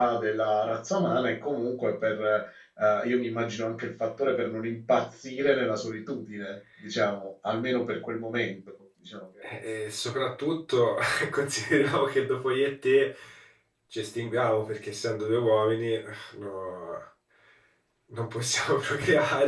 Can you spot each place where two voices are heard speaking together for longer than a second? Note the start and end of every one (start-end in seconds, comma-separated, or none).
none